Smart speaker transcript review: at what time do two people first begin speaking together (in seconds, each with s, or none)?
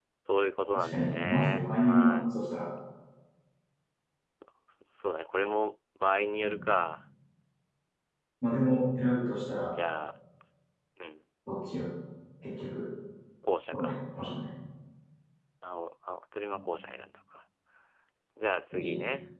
0.8 s